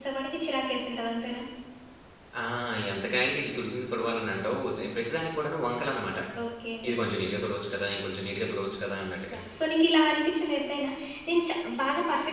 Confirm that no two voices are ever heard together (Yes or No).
Yes